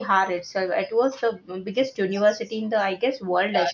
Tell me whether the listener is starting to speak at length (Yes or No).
Yes